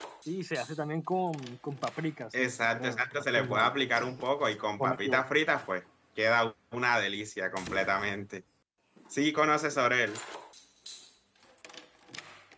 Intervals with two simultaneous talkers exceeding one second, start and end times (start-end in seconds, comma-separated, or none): 2.4-3.7